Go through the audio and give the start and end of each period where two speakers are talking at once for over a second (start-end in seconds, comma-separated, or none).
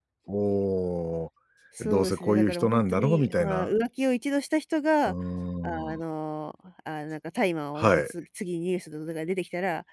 1.8-3.7